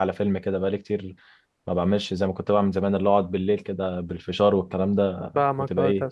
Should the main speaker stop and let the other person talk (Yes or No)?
Yes